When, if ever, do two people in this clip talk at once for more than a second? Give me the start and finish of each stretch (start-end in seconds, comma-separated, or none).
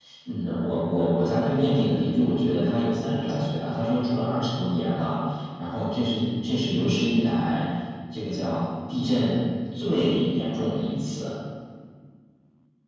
none